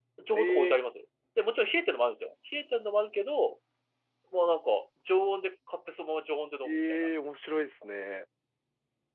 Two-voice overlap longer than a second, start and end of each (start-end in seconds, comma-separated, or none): none